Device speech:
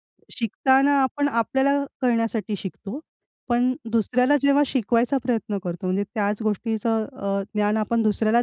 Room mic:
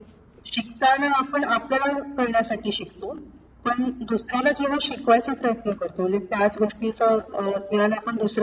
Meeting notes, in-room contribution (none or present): none